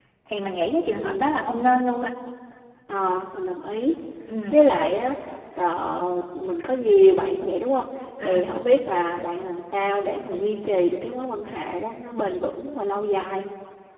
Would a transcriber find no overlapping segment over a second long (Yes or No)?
Yes